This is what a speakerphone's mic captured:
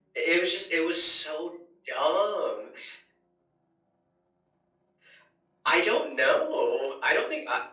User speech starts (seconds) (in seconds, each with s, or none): none